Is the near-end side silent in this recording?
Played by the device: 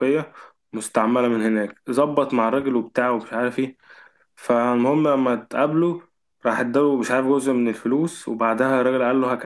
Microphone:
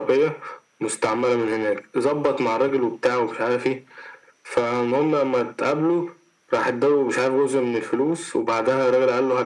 Yes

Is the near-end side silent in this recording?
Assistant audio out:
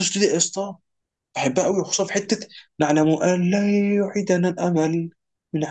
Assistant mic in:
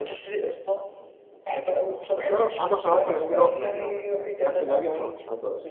No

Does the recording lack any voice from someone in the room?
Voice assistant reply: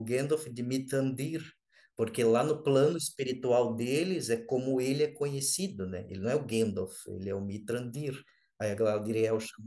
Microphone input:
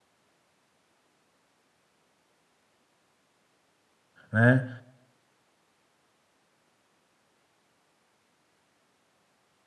No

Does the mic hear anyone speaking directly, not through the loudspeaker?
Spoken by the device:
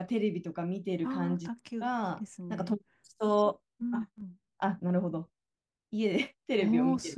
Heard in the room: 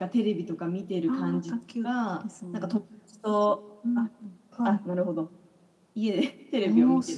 Yes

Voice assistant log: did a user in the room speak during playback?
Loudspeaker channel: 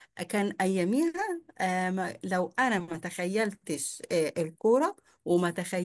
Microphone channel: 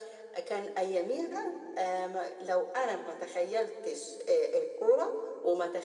No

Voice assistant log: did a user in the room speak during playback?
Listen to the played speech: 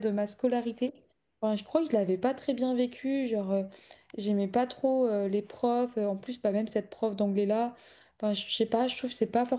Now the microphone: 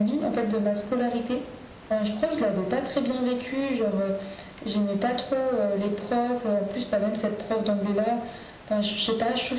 No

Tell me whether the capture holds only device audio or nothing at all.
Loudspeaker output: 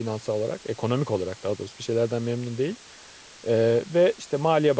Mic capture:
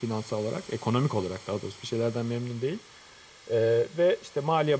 Yes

